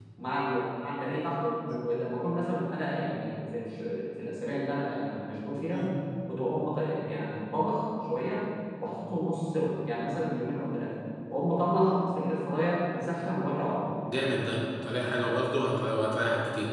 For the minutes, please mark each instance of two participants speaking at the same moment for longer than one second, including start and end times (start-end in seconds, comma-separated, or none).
none